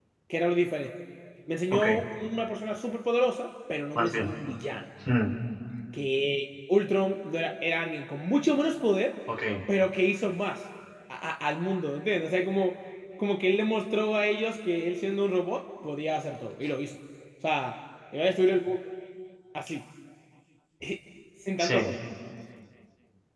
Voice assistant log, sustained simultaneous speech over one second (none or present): none